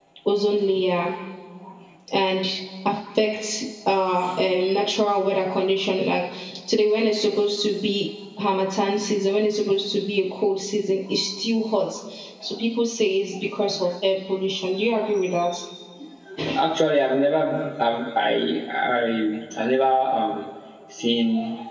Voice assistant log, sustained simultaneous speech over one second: none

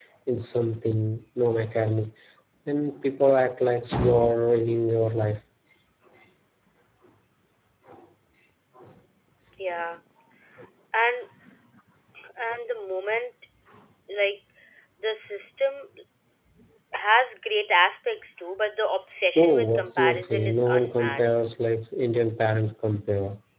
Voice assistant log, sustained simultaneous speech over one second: present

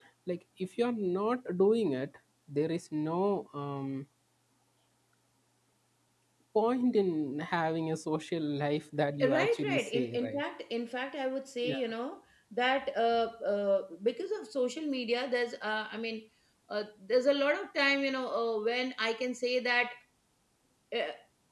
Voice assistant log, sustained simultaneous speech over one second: present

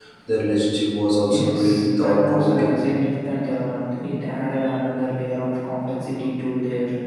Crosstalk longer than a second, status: present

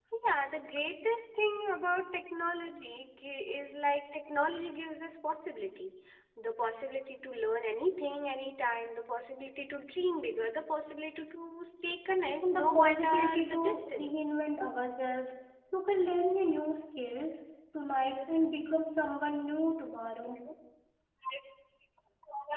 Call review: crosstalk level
present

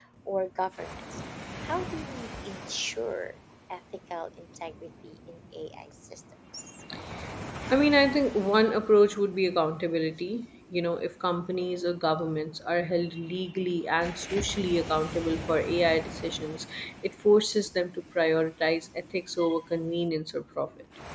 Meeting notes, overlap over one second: none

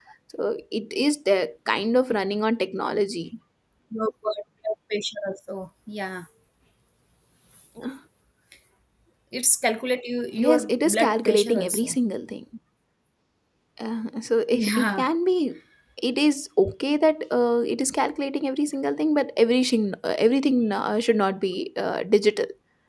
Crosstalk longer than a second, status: present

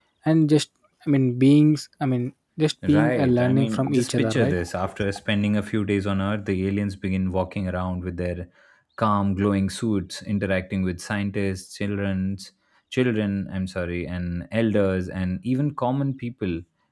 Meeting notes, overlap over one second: present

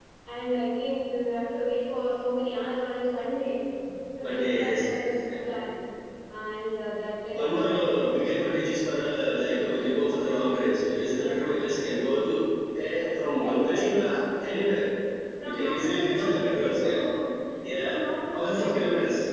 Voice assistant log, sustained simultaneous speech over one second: present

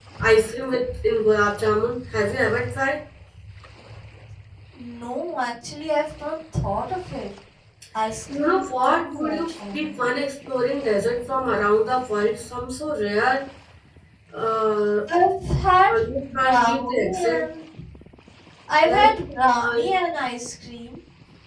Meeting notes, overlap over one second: present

